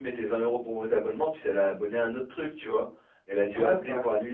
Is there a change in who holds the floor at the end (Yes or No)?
No